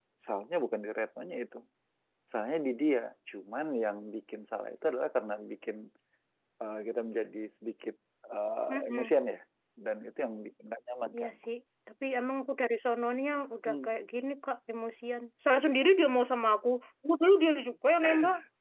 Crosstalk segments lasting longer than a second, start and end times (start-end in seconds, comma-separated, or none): none